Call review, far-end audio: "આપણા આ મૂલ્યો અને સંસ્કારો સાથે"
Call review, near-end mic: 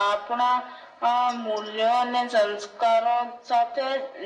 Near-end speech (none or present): none